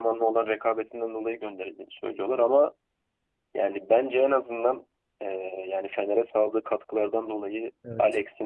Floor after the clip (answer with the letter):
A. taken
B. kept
B